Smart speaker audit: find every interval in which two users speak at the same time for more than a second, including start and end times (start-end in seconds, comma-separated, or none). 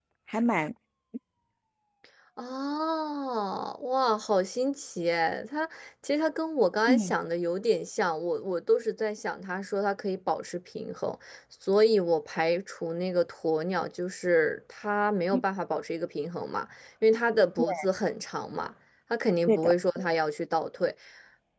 none